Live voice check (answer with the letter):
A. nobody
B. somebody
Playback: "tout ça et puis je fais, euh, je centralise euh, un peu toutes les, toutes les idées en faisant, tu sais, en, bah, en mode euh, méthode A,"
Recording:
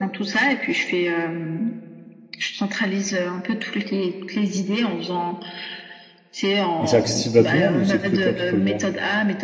B